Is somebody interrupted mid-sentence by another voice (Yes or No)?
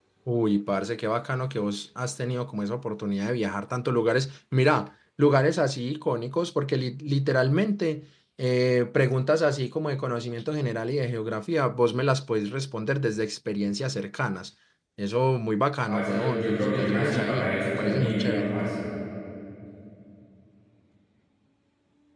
Yes